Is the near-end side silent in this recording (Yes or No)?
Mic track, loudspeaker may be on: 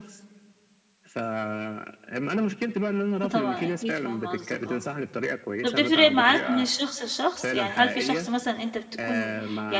No